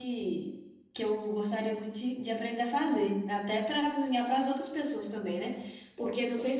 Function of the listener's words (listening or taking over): listening